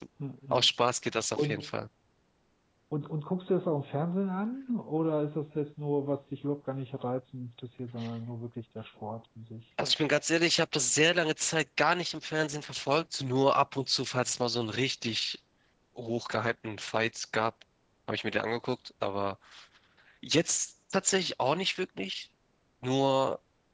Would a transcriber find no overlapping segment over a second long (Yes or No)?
Yes